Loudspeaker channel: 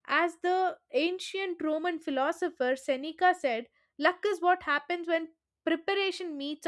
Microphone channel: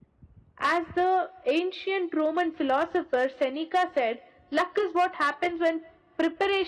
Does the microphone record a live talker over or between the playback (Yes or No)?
No